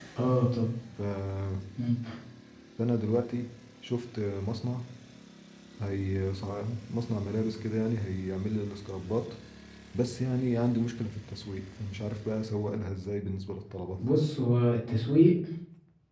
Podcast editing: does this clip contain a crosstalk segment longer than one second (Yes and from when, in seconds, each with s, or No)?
No